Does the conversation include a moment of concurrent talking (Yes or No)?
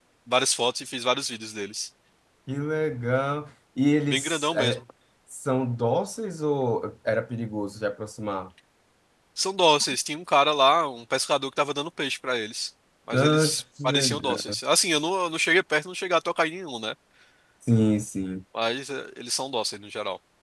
Yes